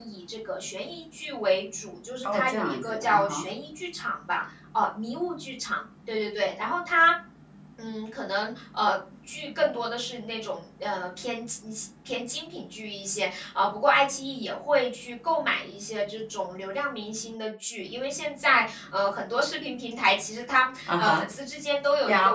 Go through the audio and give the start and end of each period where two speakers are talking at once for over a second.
2.2-3.5

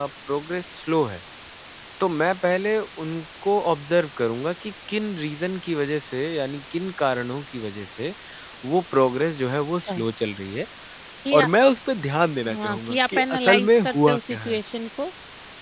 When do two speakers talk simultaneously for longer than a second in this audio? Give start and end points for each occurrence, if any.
12.5-14.6

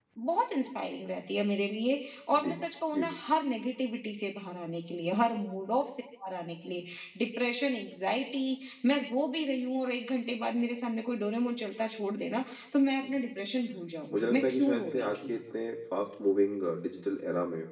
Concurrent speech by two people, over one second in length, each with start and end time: 14.1-15.3

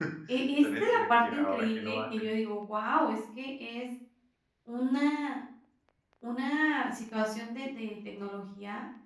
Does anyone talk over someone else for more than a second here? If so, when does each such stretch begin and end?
0.6-2.0

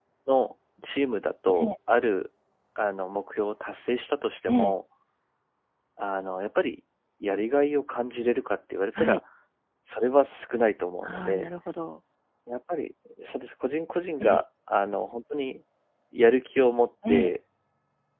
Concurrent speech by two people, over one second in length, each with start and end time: none

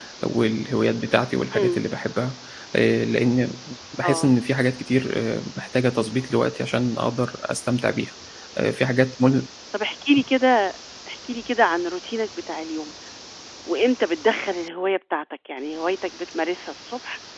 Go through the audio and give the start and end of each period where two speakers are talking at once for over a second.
none

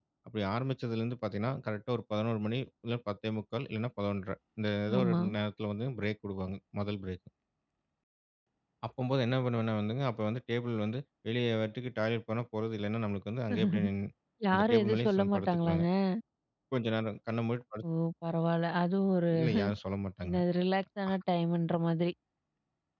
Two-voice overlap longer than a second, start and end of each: 14.5-15.8

